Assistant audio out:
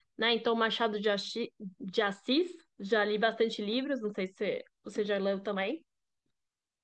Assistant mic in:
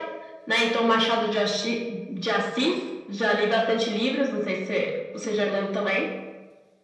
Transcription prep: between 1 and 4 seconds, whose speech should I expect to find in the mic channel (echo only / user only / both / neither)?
echo only